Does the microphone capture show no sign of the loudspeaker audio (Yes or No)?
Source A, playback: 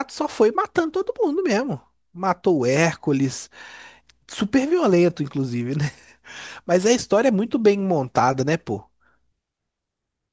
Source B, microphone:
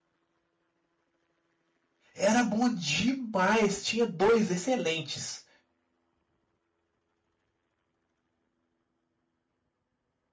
Yes